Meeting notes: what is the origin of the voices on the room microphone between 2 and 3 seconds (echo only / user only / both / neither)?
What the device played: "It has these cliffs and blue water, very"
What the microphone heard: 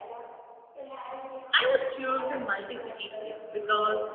both